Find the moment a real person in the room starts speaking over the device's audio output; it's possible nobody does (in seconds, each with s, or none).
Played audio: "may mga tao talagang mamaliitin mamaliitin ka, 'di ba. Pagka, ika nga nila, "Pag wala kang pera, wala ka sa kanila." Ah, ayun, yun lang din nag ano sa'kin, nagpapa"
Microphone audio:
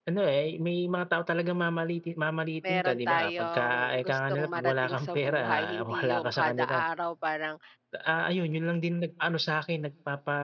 2.6 s